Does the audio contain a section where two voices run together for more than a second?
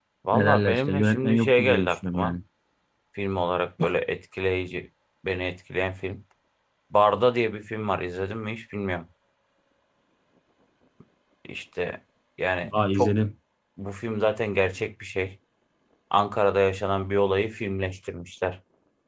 Yes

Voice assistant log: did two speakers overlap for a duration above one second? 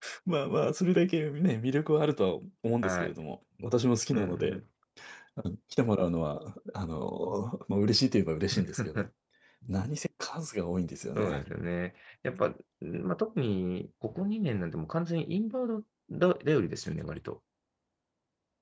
No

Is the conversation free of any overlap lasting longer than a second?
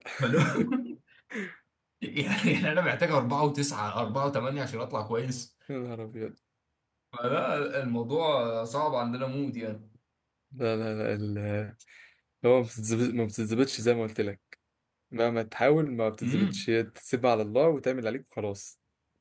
Yes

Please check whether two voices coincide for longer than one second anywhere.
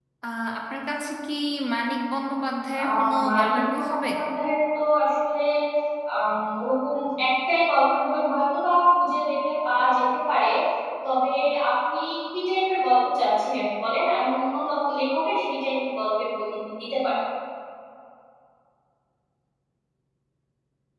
Yes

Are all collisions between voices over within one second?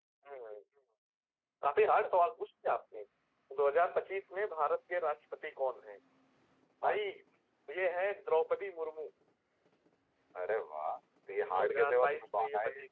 No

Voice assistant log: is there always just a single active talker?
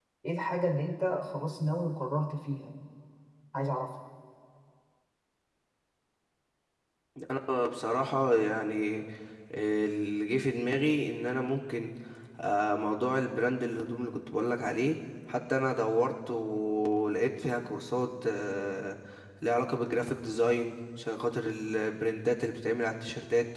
Yes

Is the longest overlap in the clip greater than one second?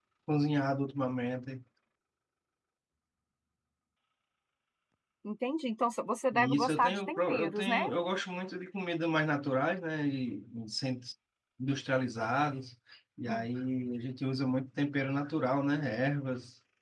Yes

